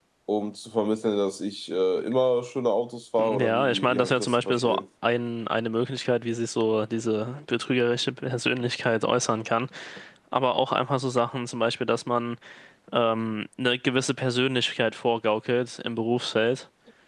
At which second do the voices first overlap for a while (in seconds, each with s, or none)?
3.2 s